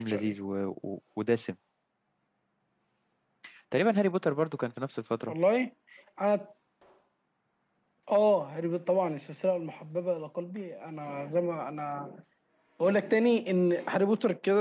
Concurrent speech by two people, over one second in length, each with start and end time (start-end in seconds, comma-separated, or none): none